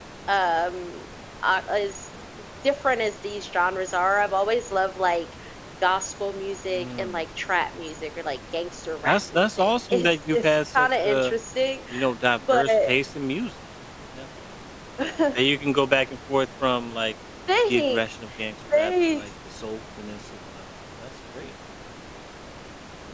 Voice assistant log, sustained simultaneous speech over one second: present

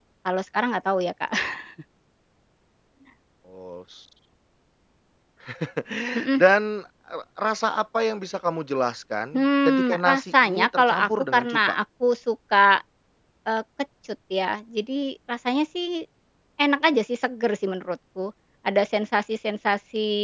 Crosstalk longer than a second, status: present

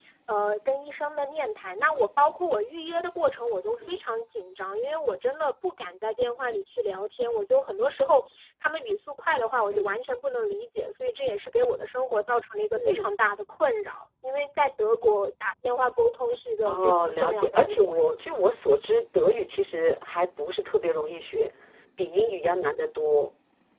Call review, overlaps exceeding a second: present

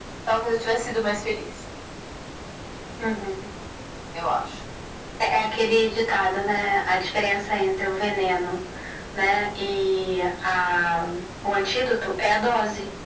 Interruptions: none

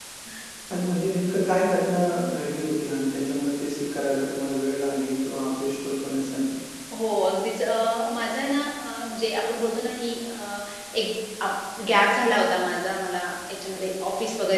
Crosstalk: none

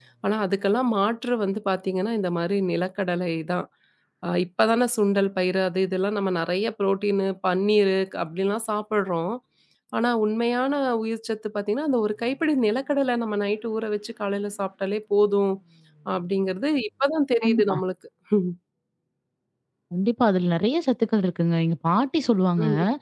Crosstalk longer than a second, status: none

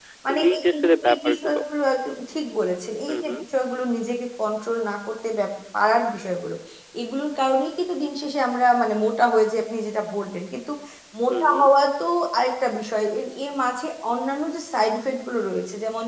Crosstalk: present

